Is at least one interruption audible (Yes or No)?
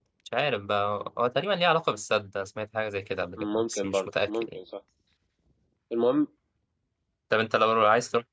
Yes